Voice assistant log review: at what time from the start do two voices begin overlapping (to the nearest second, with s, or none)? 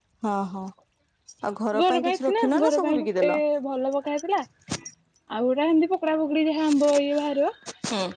2 s